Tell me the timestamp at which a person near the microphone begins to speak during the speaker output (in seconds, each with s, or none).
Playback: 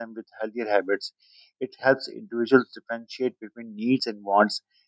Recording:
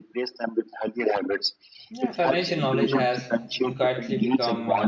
1.9 s